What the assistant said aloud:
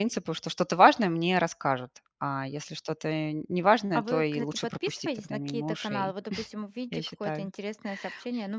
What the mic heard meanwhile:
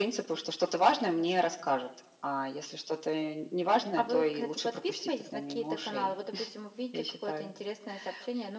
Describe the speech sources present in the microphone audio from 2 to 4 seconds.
echo only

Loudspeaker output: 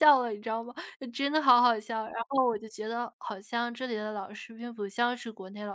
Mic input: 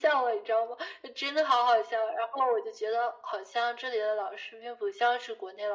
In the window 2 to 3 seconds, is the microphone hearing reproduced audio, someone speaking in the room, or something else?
echo only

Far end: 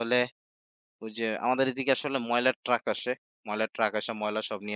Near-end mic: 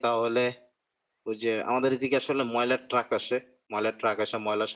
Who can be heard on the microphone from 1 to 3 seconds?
echo only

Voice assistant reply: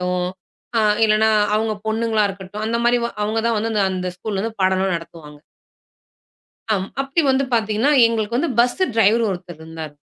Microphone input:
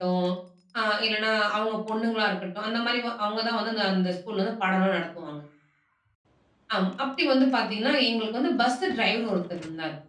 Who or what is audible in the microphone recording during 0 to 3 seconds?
echo only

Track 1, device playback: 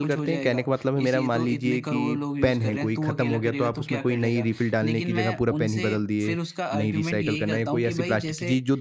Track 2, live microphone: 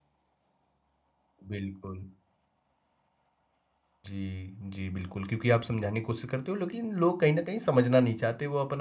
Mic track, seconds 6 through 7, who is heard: user only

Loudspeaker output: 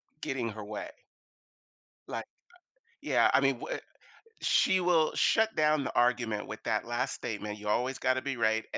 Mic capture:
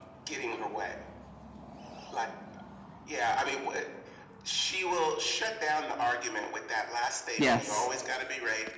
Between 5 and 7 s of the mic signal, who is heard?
echo only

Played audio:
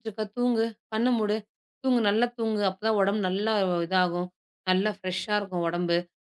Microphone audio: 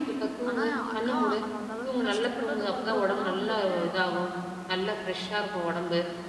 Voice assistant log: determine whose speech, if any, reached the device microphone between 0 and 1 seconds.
both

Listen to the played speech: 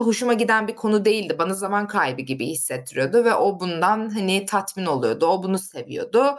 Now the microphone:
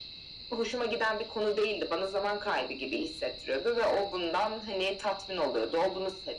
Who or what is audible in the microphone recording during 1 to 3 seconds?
echo only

